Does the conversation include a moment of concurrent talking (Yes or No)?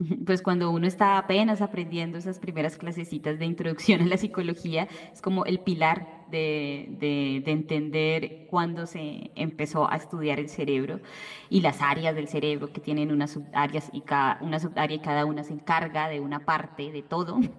No